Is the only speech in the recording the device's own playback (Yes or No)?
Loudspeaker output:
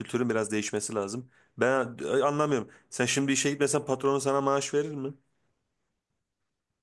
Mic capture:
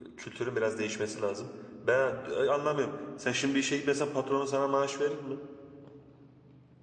Yes